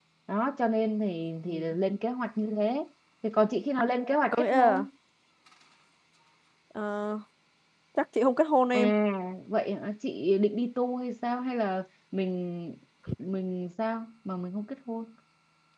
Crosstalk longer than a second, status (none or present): none